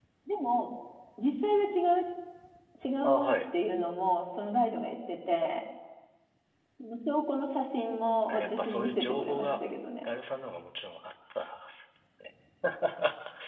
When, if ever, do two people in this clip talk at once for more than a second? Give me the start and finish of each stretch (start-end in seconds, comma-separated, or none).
8.3-9.5